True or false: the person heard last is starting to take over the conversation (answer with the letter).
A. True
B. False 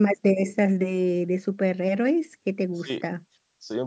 A